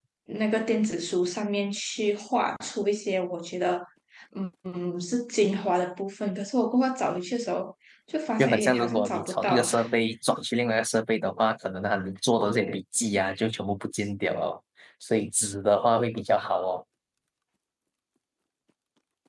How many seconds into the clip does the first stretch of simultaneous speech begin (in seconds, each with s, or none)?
8.4 s